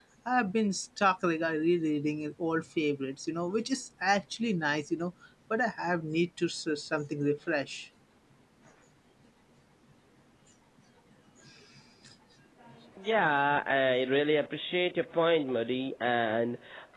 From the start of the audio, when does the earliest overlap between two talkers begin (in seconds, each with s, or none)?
none